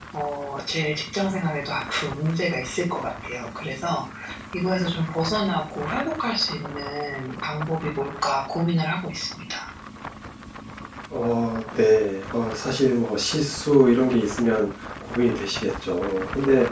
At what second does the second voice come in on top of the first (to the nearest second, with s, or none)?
none